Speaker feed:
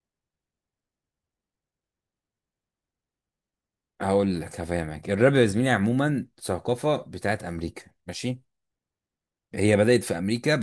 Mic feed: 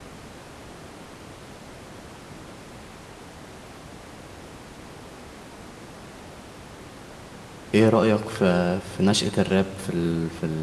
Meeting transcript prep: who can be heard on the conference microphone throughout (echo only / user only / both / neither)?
user only